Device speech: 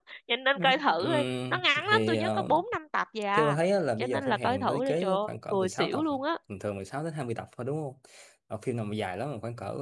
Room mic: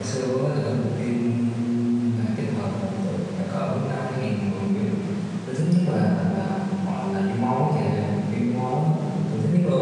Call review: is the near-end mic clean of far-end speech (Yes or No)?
Yes